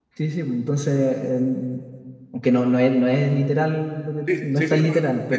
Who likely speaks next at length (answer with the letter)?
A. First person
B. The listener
B